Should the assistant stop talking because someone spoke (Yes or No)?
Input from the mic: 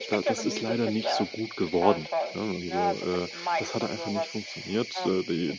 Yes